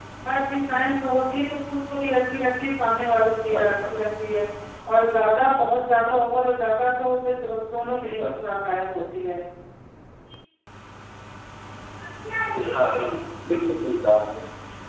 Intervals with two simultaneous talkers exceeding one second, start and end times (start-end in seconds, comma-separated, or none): none